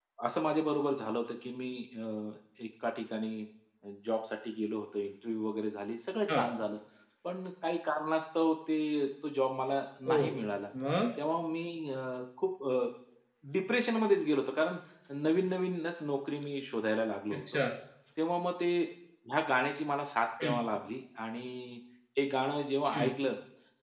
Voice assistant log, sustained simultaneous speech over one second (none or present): none